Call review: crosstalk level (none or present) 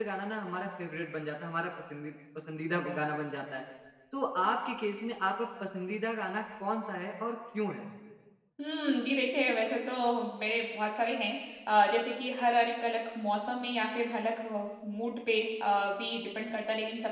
none